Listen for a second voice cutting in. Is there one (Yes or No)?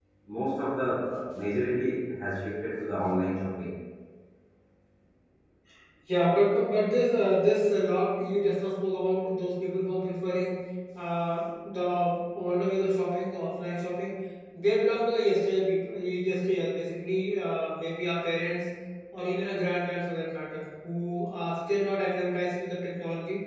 No